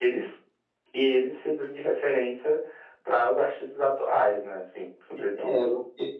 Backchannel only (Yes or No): No